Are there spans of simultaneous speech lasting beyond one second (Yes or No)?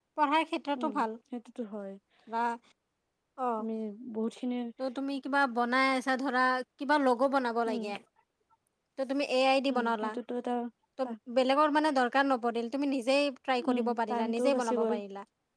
Yes